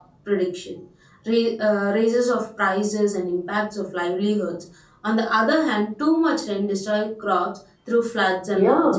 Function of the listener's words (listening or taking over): taking over